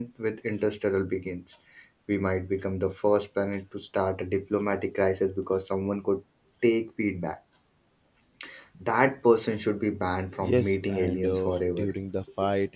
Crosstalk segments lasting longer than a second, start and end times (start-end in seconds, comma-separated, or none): 10.4-12.0